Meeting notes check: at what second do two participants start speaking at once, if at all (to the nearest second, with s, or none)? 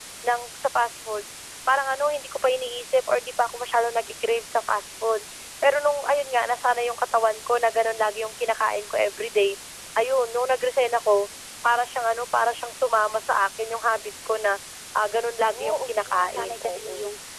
15 s